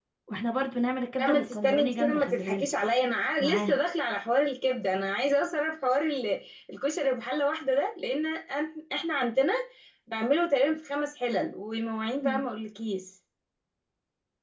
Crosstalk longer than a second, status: present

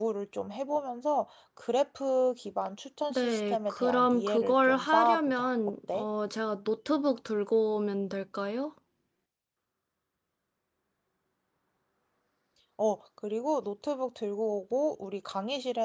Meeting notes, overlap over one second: present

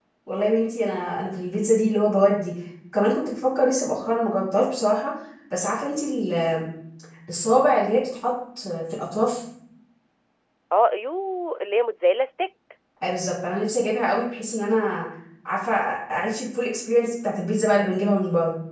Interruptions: none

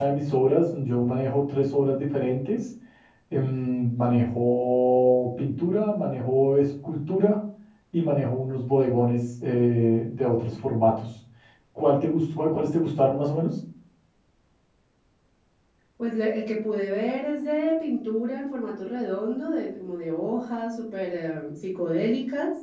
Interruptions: none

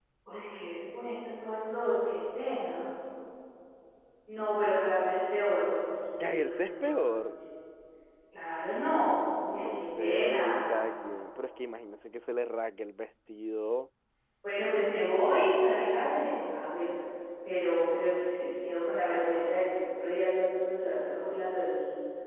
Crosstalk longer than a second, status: present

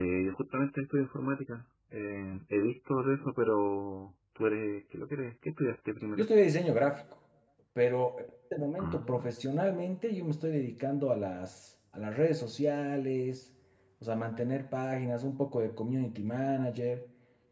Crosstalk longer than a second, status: none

